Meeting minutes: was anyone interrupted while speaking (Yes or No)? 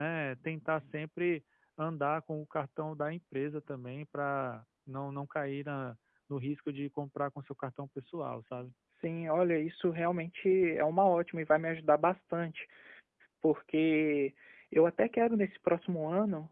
No